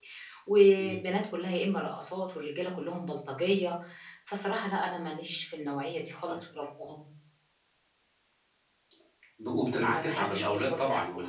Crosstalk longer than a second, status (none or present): present